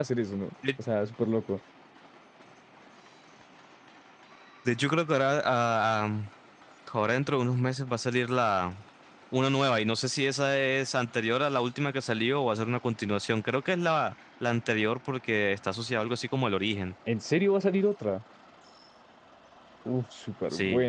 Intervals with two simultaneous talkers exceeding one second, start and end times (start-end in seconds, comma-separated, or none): none